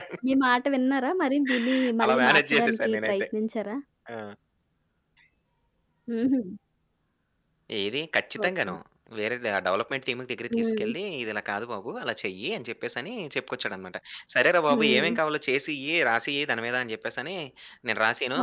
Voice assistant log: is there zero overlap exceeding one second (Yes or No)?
No